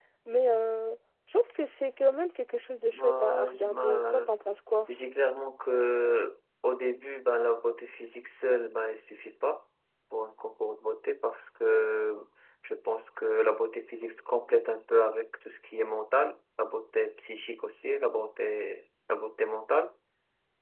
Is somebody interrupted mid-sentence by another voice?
Yes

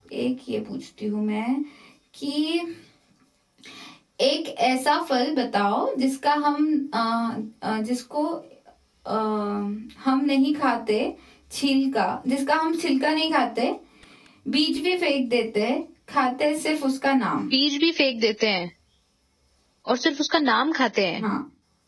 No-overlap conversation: Yes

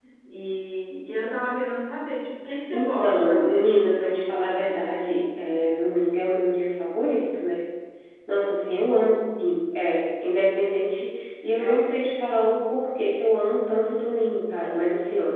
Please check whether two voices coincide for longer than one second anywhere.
Yes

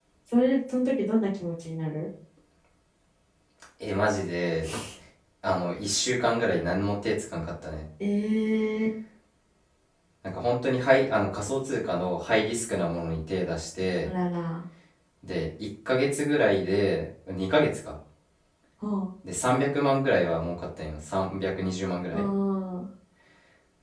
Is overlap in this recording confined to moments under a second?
Yes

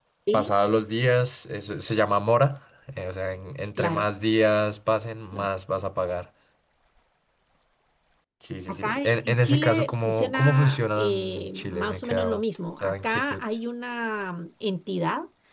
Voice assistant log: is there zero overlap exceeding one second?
No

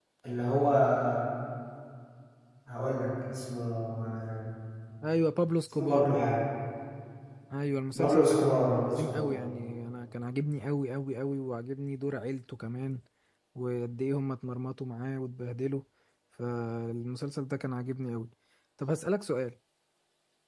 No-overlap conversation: No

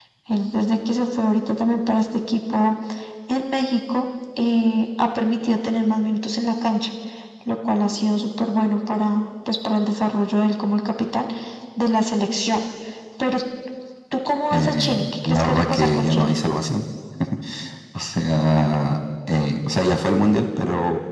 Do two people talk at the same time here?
Yes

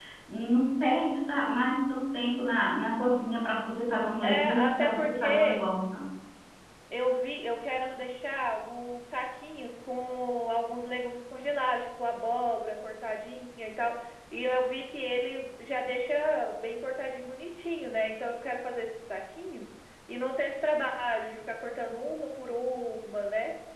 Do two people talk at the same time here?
Yes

